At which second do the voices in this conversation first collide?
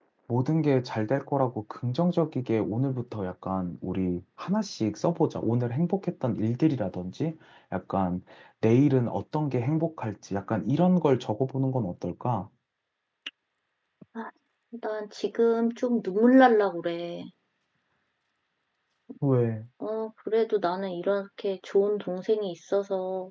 none

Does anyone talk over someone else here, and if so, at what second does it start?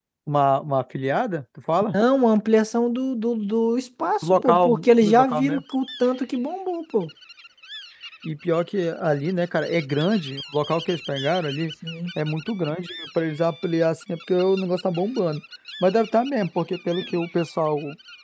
4.2 s

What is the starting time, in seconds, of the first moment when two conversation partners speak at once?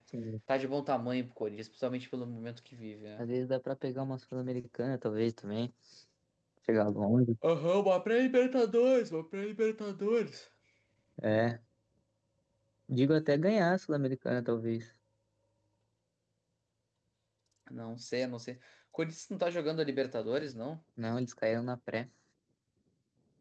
none

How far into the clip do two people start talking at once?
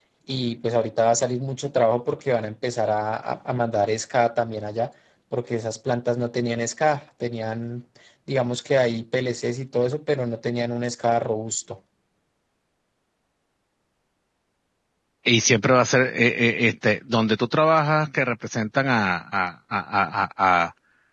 none

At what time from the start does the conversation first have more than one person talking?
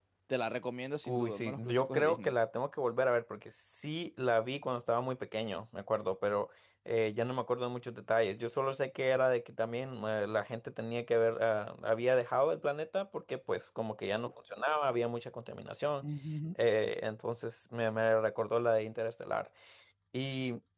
1.0 s

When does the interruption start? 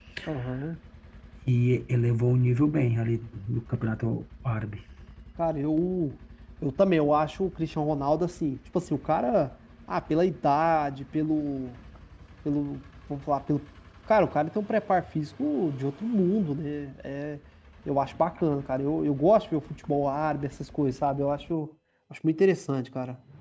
none

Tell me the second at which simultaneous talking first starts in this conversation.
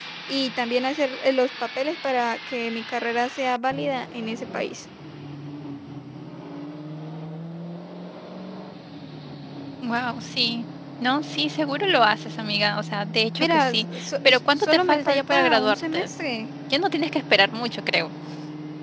13.4 s

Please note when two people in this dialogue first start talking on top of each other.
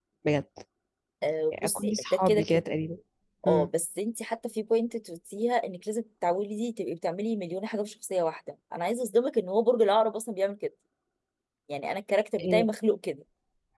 1.5 s

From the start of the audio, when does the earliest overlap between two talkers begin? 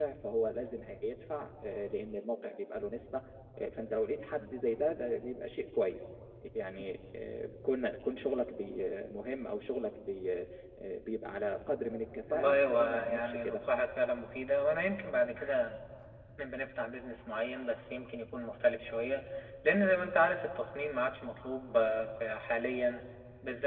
12.3 s

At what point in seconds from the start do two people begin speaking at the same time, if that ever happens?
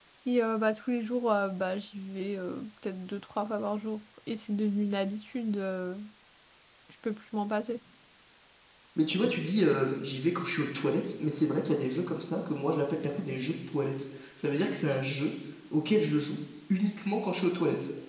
none

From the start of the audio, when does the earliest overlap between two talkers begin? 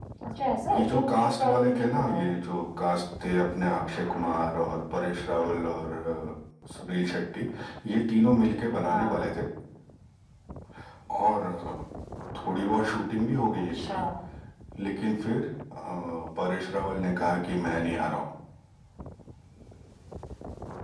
0.7 s

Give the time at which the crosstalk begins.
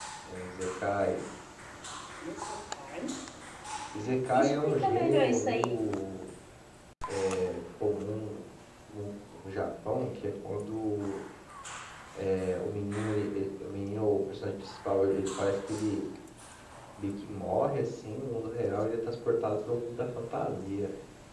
4.3 s

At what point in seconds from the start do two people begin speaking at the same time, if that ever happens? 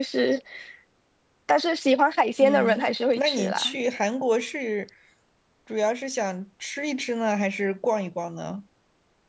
2.4 s

